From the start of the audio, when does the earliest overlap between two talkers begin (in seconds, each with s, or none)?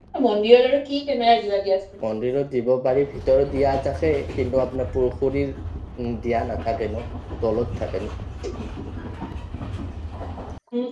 none